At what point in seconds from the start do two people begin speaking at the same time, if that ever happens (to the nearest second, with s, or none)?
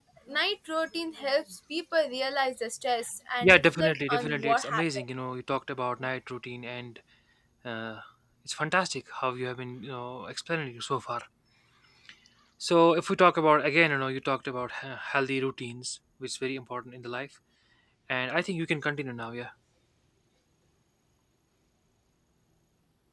3 s